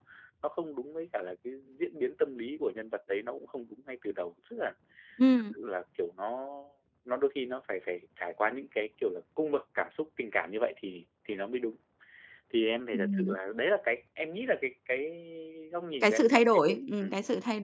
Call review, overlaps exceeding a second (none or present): present